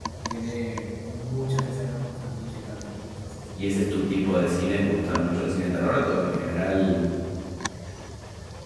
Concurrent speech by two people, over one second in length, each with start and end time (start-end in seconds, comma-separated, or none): none